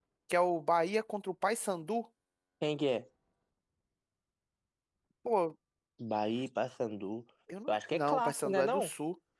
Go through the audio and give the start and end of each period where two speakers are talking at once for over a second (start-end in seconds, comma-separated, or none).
7.7-8.9